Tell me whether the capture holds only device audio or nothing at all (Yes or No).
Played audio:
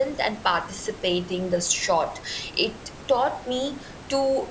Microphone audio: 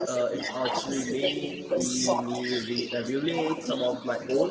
No